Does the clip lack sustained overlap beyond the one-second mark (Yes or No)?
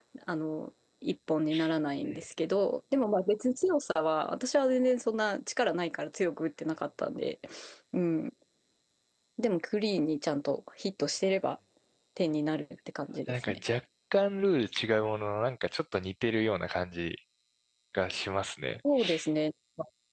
Yes